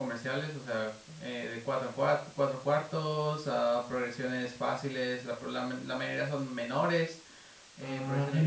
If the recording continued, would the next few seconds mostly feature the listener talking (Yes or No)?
Yes